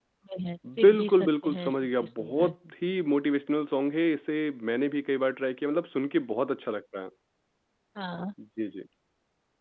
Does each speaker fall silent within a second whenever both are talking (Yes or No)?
No